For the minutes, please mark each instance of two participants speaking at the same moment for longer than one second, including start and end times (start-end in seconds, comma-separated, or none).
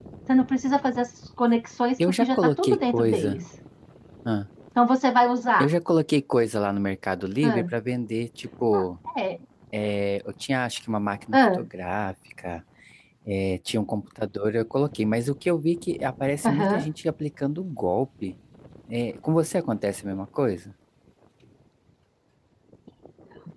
2.1-3.4